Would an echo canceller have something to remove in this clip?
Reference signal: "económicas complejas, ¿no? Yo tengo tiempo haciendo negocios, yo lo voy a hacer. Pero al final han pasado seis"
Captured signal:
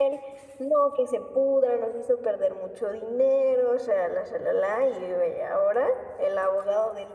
No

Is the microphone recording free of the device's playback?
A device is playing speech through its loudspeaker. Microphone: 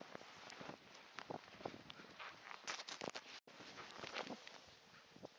Yes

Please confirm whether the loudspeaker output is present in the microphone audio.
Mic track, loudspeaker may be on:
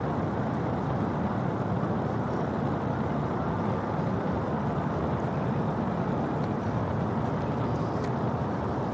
No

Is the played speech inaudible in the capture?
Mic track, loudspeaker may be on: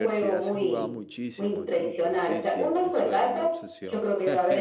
No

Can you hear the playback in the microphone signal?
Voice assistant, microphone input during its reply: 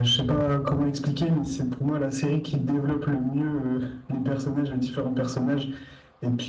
Yes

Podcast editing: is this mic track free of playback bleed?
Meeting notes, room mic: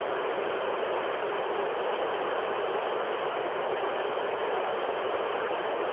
Yes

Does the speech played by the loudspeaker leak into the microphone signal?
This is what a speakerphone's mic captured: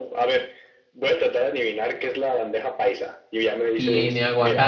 Yes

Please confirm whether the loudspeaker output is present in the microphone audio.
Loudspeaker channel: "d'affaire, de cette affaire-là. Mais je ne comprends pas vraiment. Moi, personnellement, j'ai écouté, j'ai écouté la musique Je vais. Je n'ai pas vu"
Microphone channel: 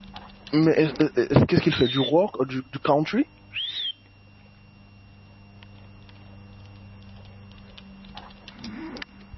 No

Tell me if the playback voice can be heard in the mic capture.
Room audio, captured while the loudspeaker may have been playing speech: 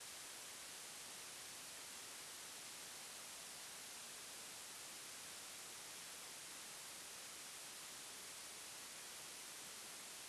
No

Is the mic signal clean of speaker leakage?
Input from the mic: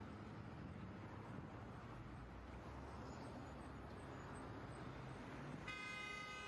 Yes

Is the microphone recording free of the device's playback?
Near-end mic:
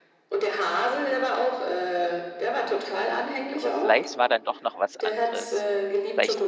No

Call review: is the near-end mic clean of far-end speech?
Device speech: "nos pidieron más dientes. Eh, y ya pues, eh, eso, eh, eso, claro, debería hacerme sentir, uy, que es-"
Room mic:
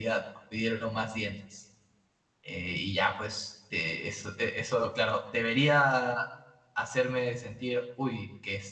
No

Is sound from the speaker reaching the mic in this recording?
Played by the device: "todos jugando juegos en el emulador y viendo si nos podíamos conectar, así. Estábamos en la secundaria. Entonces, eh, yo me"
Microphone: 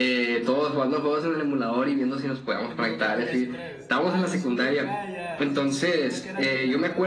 Yes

